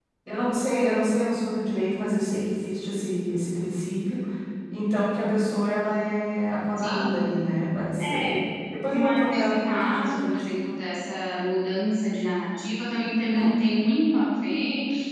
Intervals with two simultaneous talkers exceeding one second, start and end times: 8.9-10.5

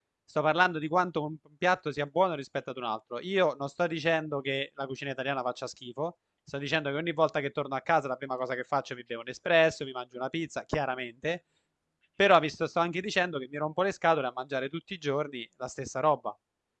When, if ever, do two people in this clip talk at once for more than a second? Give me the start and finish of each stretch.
none

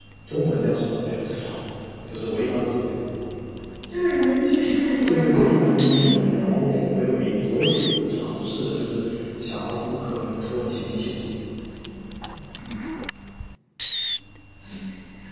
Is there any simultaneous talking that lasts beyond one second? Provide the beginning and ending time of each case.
5.0-6.9

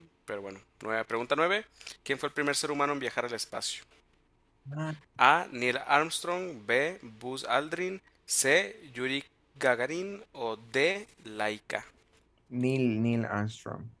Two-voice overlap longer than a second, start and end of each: none

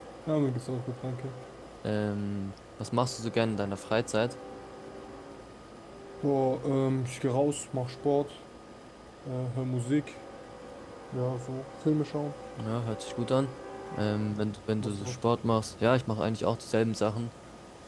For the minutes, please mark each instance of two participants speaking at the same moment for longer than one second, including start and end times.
none

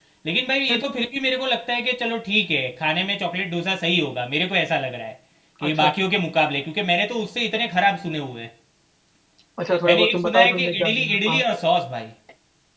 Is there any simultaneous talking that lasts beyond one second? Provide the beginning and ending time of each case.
9.9-11.4

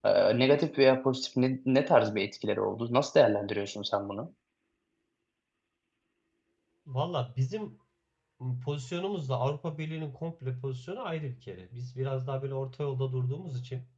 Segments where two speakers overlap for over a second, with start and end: none

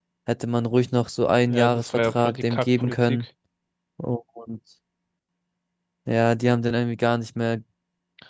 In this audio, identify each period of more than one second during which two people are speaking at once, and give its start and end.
1.5-3.2

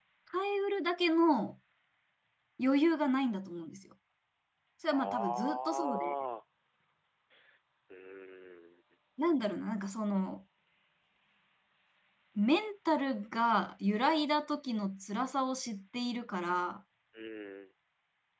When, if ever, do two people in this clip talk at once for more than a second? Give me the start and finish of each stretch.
4.9-6.1

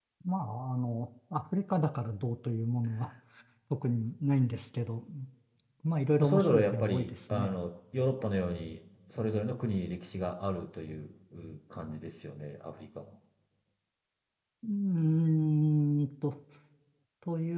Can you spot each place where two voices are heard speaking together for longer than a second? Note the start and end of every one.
6.2-7.5

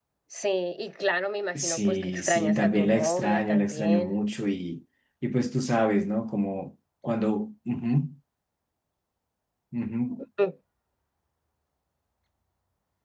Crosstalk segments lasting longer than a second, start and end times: 1.6-4.2

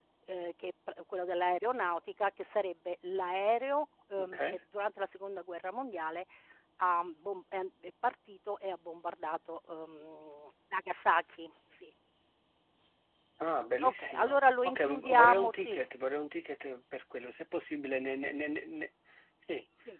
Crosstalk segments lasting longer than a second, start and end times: 13.8-15.8

